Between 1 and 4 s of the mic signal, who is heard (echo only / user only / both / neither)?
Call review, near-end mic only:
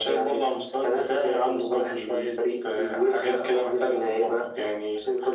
echo only